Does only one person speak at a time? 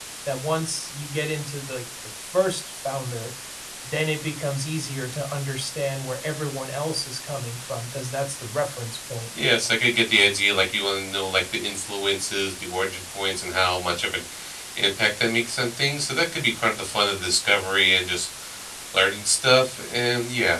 Yes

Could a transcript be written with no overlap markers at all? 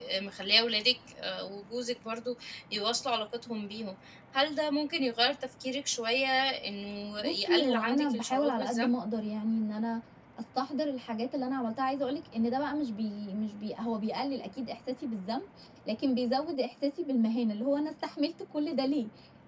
No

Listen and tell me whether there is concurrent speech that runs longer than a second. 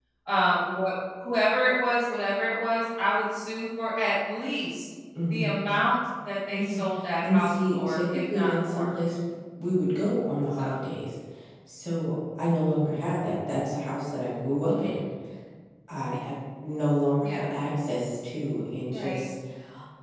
Yes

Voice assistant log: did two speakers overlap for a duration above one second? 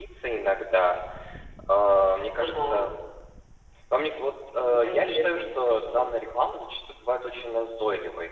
Yes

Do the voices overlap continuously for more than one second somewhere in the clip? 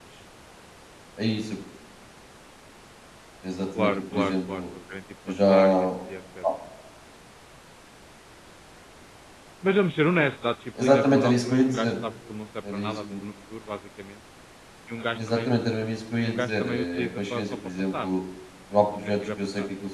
Yes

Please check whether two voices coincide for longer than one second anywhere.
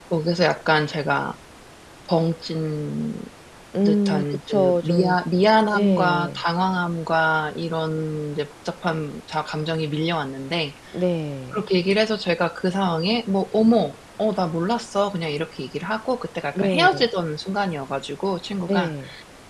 Yes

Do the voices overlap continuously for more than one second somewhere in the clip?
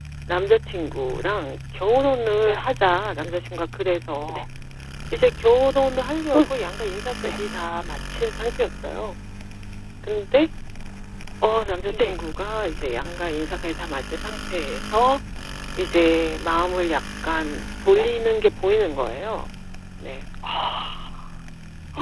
No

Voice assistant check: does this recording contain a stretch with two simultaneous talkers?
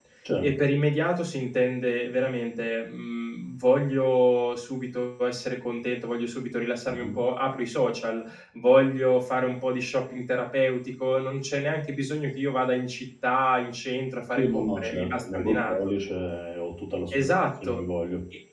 Yes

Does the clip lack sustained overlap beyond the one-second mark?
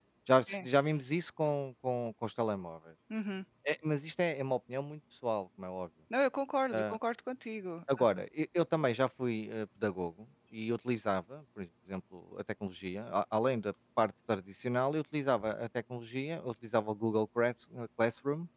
Yes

